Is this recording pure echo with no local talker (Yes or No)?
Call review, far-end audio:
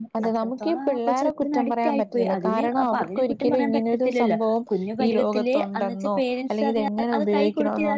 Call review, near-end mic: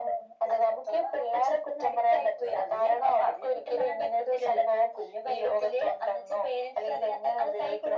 Yes